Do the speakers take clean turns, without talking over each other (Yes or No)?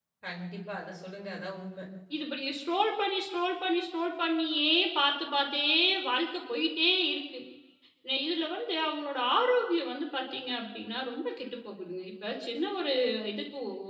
Yes